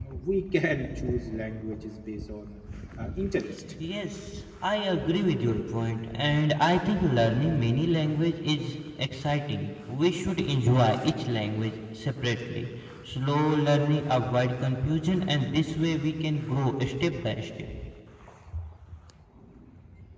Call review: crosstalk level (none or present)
none